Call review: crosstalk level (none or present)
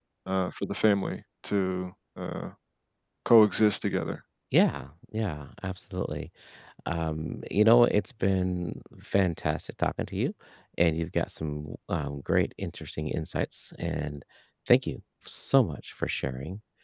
none